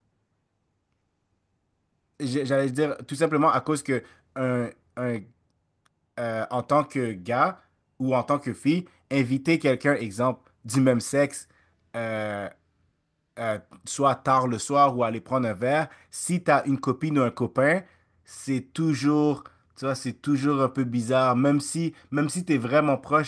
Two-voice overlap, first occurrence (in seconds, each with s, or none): none